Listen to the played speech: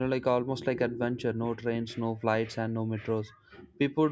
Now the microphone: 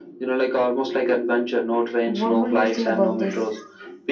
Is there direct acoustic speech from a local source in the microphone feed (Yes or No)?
Yes